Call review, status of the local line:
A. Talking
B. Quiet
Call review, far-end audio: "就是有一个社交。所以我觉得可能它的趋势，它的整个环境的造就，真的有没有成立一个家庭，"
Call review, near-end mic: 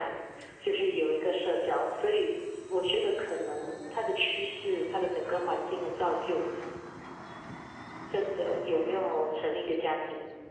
B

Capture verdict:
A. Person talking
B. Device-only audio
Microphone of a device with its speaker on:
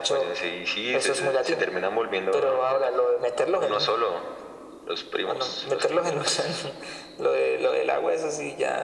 B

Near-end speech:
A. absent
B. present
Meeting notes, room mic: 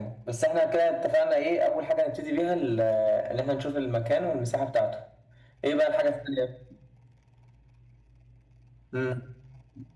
A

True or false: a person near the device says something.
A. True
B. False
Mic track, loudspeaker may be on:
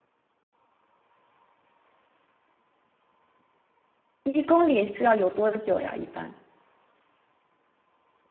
A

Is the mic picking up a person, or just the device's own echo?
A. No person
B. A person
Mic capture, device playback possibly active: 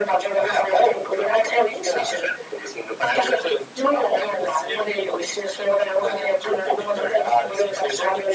A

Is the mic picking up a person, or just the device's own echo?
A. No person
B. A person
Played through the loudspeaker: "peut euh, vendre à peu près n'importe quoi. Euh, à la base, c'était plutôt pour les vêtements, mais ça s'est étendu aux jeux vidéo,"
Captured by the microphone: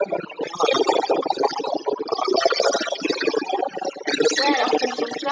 B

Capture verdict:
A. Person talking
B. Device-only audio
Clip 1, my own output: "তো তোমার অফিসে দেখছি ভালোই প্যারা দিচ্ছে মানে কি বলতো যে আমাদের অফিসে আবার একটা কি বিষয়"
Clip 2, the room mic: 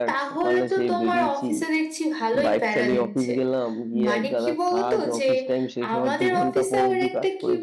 A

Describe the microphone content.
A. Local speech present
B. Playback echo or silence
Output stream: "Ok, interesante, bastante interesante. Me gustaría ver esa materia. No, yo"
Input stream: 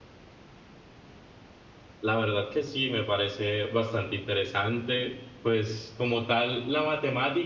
A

